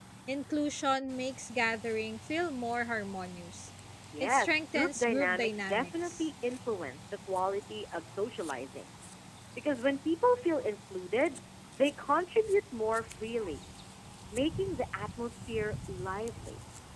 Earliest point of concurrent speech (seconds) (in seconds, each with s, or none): 4.2 s